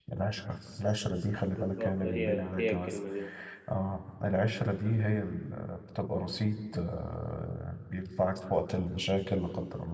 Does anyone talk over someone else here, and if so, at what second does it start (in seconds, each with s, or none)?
1.6 s